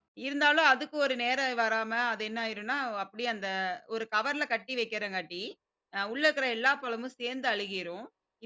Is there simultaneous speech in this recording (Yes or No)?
No